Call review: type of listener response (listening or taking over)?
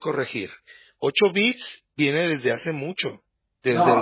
taking over